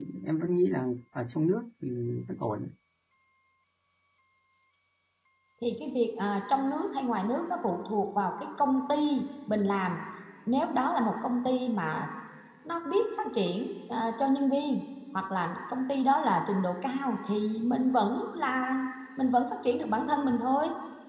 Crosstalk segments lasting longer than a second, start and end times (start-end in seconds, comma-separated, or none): none